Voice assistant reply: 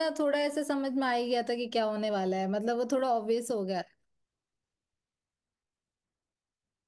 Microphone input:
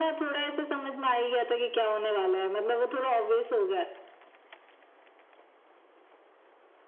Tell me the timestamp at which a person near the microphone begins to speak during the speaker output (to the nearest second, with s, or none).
none